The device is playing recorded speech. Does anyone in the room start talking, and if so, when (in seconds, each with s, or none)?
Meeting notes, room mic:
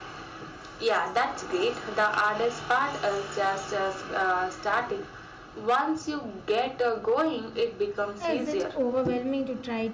8.2 s